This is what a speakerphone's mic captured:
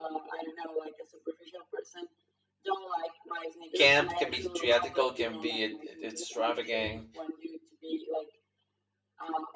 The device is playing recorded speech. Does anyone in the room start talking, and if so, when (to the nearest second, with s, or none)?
4 s